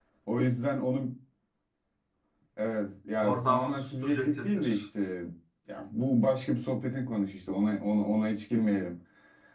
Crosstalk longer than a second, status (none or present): present